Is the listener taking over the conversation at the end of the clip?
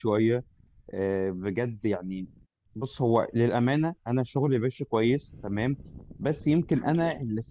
No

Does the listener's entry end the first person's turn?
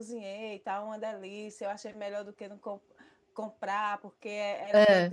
No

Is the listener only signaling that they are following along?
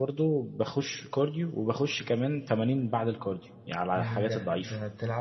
No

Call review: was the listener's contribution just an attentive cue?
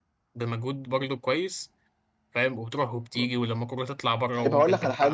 No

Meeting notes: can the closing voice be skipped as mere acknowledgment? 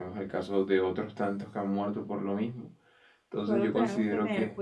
No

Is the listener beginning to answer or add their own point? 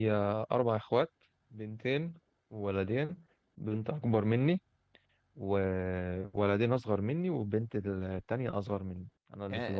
Yes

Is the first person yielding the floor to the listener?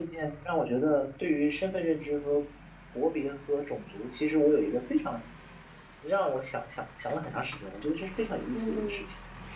Yes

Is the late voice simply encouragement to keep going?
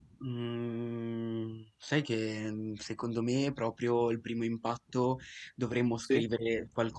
Yes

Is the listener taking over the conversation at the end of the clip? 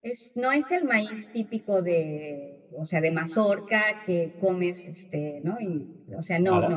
No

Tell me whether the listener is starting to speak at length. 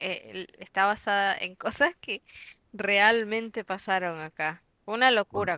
Yes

